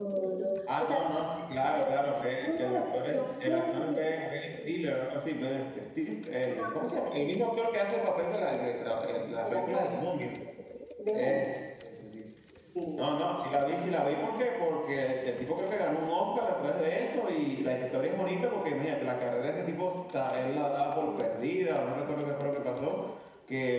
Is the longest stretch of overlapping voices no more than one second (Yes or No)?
No